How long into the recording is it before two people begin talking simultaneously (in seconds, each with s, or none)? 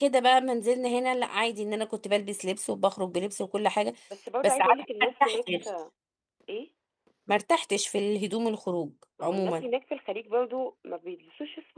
4.4 s